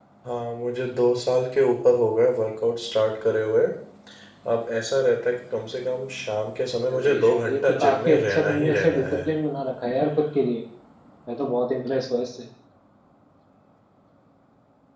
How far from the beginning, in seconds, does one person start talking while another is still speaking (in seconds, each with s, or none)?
6.9 s